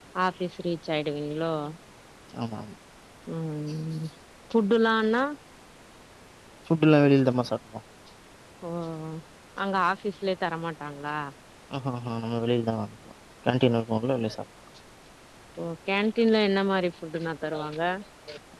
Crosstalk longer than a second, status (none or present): none